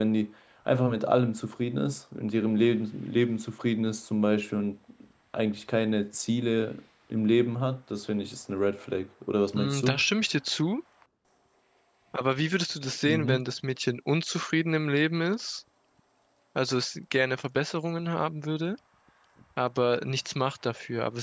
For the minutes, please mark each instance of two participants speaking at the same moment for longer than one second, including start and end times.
none

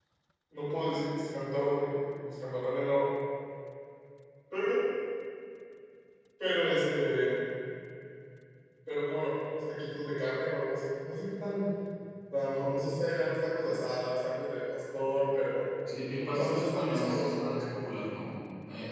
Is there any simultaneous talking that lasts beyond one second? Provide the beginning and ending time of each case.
16.2-17.6

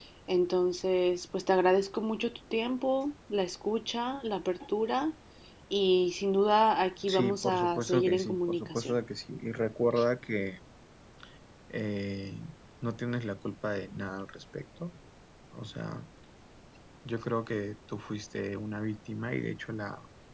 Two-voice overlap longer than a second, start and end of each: 7.1-9.0

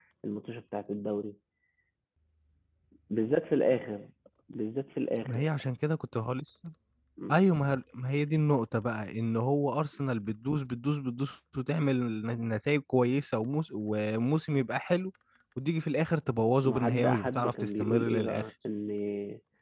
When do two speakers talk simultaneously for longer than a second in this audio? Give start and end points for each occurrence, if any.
16.6-18.4

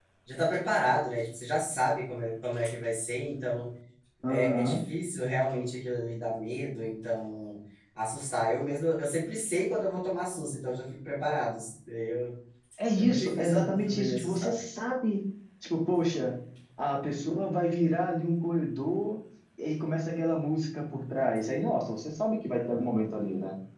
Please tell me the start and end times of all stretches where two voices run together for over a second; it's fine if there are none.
12.9-14.5

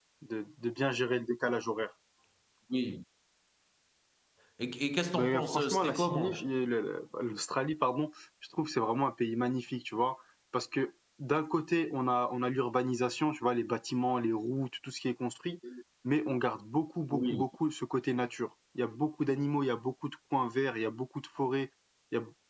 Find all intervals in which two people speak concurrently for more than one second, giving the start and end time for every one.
5.1-6.5

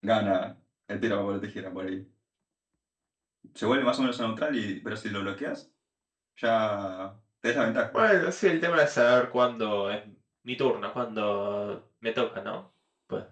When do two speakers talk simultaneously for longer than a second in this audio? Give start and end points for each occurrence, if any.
none

